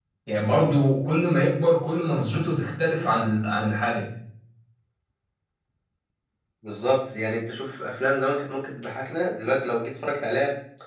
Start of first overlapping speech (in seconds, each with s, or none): none